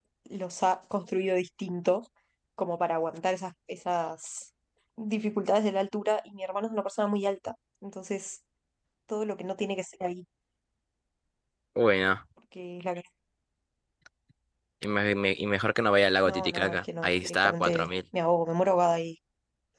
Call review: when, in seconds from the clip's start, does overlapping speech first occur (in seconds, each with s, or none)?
16.2 s